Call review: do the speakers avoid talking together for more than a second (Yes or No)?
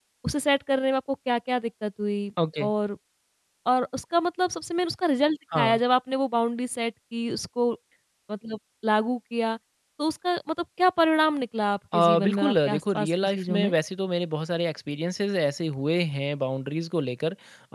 No